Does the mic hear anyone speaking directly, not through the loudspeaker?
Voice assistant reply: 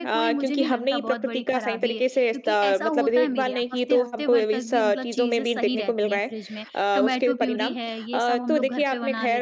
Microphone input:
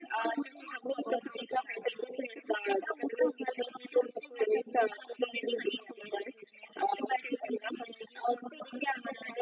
No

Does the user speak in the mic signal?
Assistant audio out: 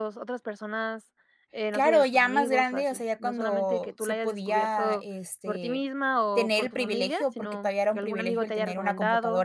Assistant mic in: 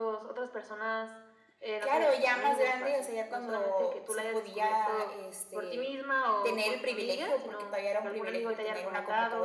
No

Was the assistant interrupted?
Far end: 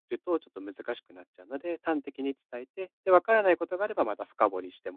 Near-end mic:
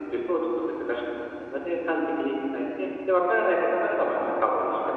No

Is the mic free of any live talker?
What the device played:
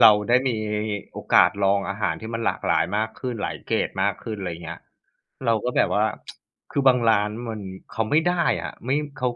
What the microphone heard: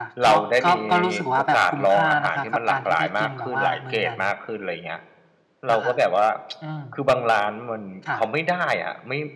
No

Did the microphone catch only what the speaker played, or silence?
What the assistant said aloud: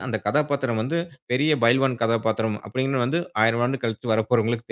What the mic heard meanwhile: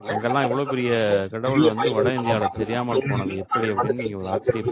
No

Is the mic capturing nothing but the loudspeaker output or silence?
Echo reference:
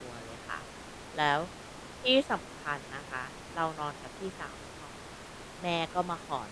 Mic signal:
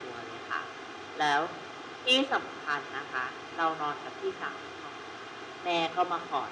Yes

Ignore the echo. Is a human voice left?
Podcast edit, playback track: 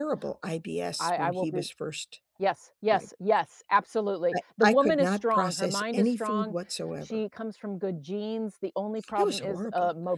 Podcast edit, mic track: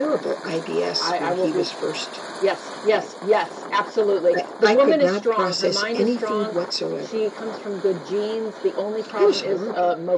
No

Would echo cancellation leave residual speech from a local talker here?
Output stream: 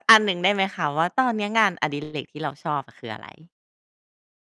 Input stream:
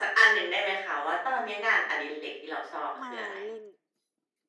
Yes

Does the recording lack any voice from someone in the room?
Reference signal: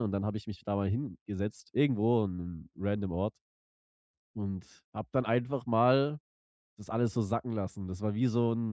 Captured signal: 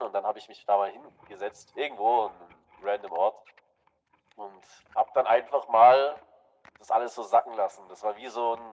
Yes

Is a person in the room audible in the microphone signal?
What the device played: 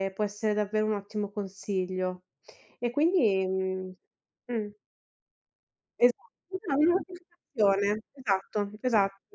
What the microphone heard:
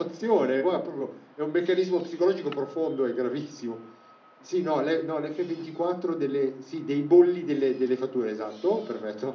Yes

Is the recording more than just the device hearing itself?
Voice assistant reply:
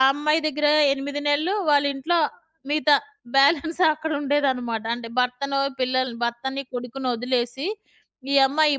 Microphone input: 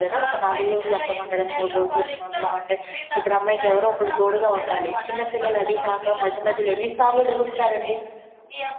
Yes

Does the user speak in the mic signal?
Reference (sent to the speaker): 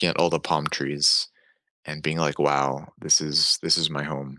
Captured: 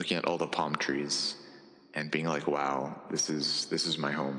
No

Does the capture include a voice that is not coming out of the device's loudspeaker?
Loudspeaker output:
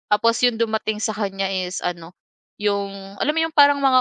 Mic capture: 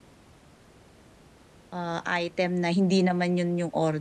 Yes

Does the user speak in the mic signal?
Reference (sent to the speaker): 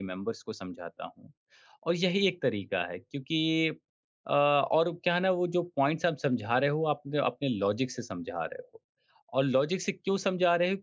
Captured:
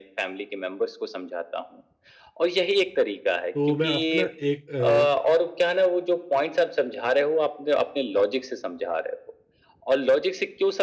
Yes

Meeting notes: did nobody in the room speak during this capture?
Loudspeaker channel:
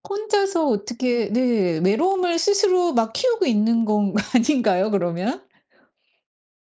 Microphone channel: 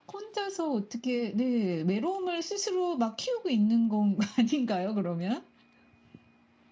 Yes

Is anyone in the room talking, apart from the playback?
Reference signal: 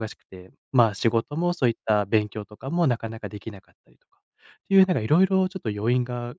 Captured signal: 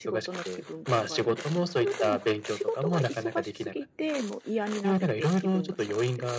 Yes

